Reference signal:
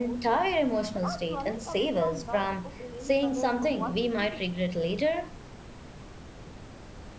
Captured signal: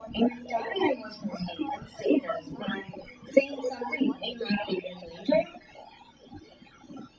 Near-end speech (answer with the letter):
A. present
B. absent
B